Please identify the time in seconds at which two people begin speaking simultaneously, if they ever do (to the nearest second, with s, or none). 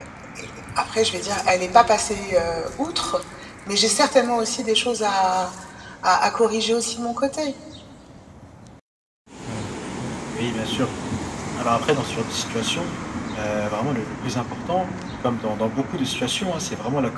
none